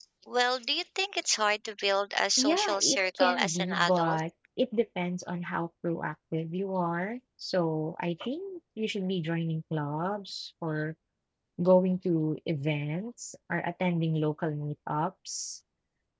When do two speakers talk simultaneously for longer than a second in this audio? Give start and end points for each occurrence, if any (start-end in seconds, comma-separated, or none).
2.4-4.2